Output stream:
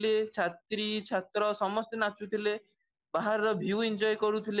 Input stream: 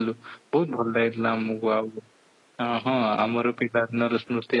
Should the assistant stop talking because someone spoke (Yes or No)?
Yes